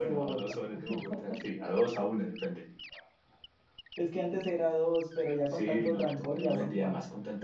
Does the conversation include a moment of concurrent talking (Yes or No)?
Yes